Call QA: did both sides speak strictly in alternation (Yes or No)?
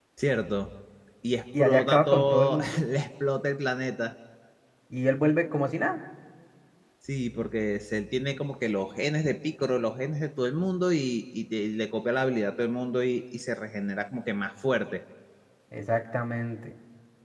No